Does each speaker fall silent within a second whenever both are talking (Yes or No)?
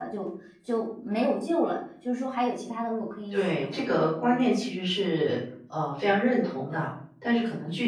No